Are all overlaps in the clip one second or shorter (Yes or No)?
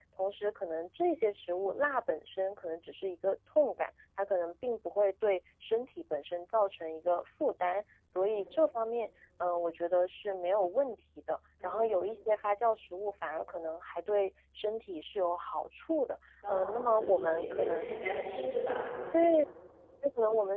No